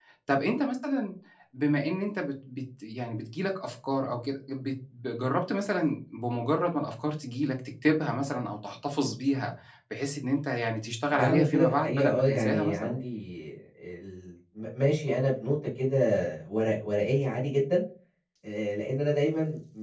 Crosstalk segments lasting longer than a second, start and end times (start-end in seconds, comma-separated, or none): 11.1-13.0